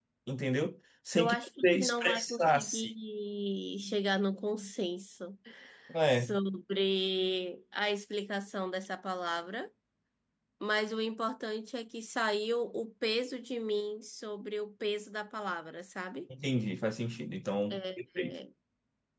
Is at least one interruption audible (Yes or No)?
Yes